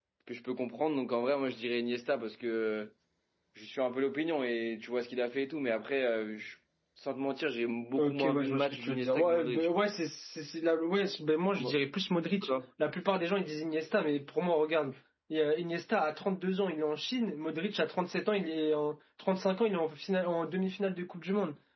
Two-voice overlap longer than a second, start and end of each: 8.0-9.7

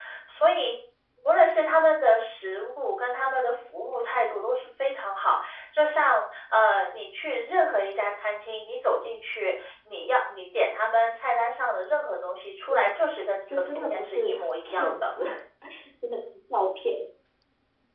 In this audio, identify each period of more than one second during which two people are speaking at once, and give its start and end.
13.5-15.2

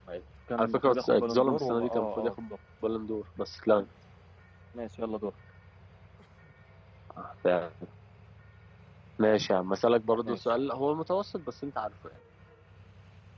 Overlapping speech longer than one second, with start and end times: 0.6-2.3

